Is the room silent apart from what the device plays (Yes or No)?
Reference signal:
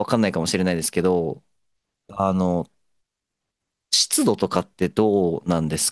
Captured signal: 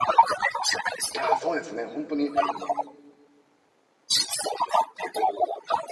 No